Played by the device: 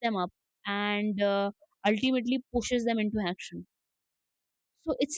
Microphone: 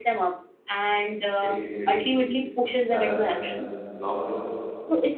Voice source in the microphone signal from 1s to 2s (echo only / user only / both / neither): both